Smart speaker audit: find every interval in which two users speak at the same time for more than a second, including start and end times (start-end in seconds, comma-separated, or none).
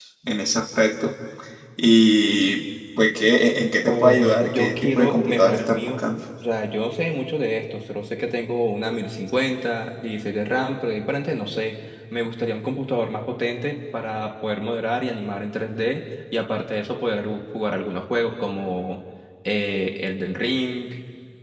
3.9-5.9